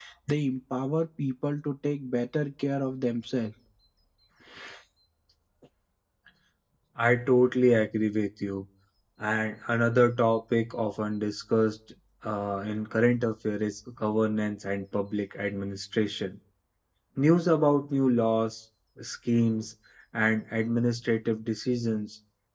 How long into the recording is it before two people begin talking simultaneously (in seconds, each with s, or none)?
none